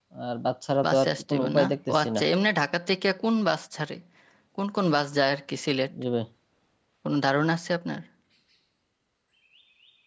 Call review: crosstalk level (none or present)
present